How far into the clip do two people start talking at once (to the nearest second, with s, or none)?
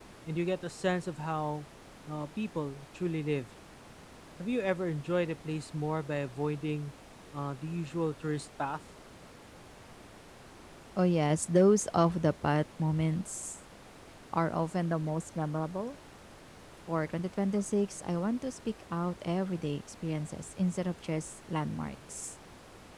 none